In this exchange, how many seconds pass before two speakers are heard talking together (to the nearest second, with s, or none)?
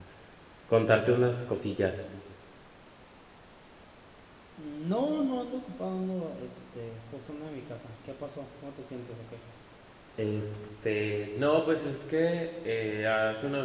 none